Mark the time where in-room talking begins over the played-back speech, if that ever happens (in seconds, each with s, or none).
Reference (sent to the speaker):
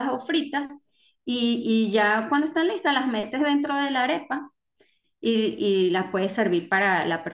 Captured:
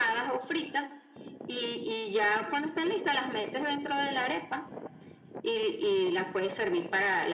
none